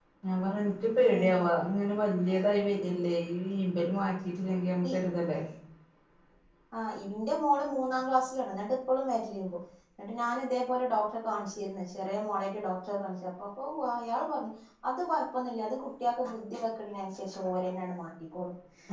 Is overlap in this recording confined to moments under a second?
Yes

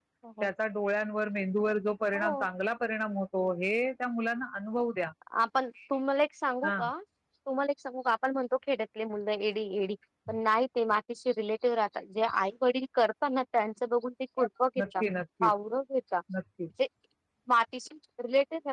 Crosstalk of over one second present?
No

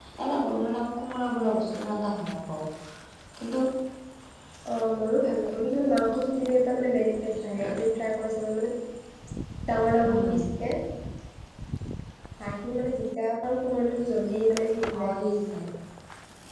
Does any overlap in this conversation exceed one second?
No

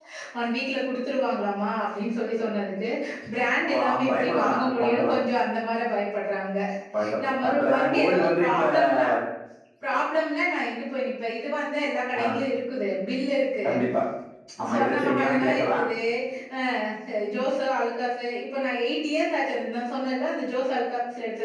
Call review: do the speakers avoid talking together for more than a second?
No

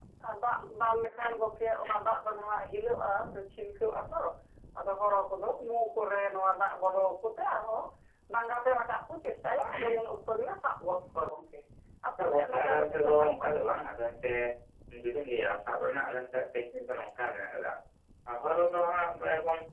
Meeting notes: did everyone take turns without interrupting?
No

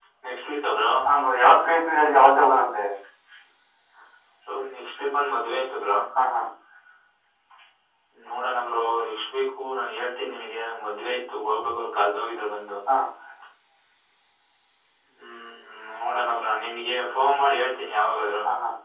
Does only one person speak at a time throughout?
Yes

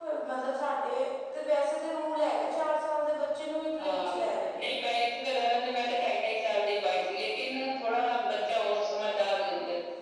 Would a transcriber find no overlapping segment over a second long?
Yes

